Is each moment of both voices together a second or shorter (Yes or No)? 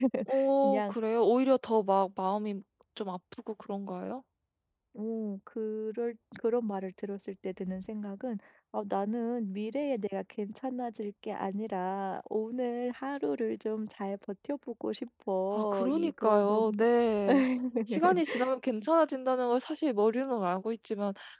No